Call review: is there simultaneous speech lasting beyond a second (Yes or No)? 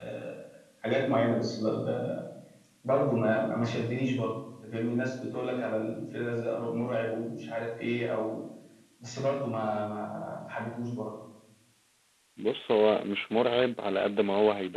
No